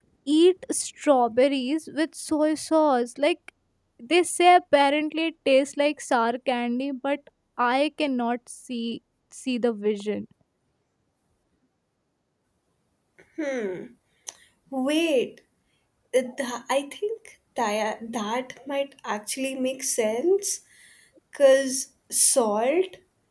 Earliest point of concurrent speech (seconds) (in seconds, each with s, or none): none